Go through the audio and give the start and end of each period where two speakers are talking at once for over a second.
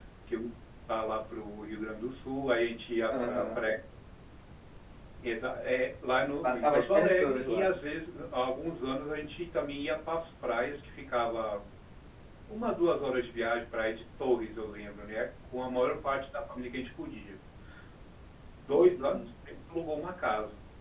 6.4-7.7

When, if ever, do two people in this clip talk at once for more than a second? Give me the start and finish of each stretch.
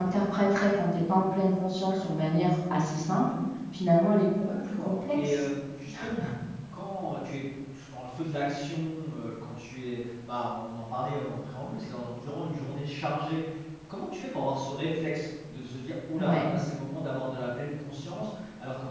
4.2-5.4

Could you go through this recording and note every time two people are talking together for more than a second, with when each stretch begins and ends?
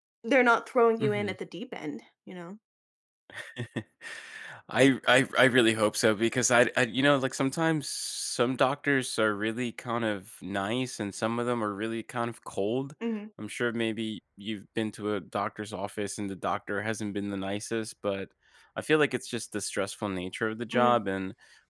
none

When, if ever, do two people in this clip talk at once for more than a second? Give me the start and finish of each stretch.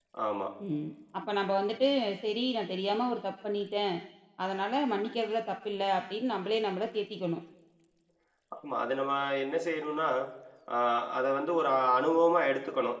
none

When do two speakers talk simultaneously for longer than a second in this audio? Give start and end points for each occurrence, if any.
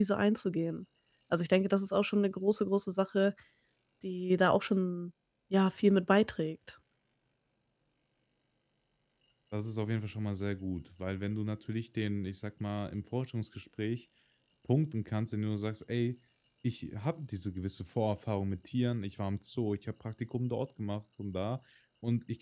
none

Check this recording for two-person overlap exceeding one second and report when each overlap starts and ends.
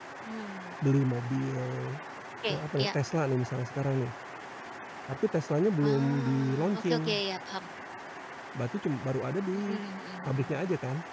5.9-7.2

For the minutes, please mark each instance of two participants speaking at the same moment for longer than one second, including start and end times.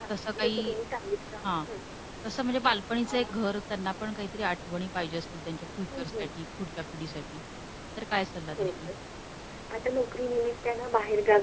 none

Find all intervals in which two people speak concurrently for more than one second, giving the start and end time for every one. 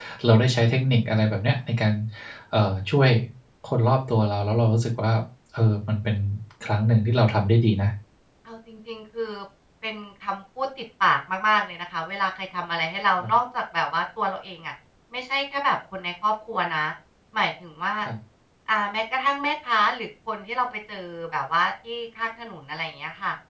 none

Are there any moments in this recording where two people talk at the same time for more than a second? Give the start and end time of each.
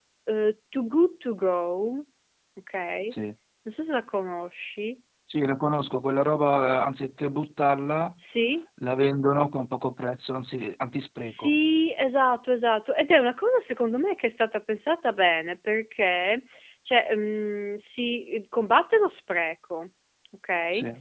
none

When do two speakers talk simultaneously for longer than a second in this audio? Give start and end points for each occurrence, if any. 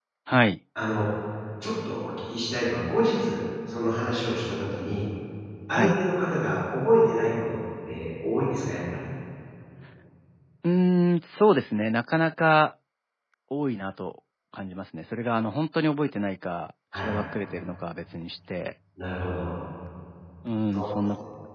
none

